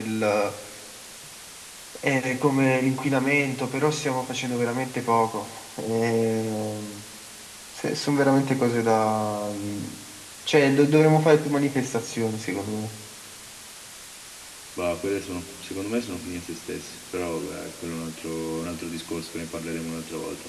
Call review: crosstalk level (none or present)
none